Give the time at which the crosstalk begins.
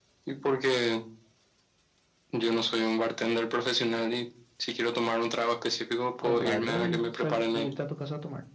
6 s

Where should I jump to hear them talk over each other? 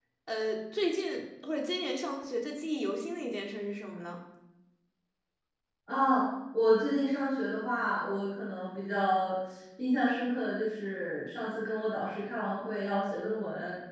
none

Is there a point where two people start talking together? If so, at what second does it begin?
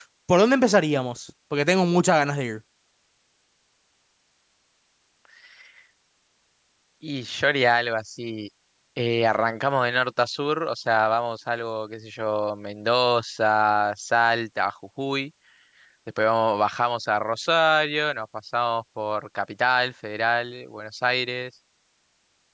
none

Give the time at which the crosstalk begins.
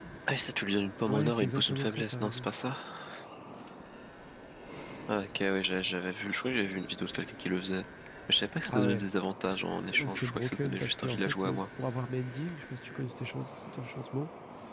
1 s

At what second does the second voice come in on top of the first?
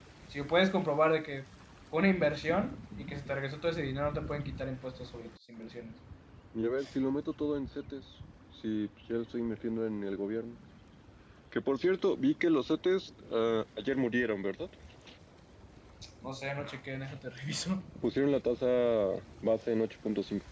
none

